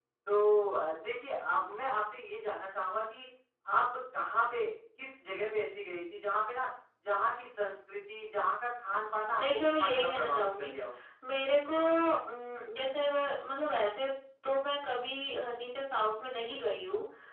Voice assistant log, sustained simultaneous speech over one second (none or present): present